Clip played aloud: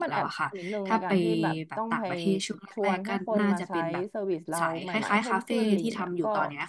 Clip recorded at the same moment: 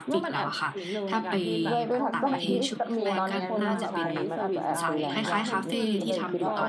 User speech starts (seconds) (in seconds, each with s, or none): 1.7 s